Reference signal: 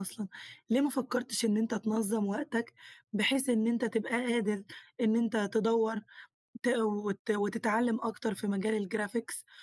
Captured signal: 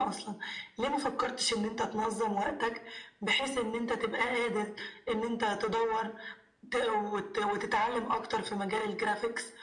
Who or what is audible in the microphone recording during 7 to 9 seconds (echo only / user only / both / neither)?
echo only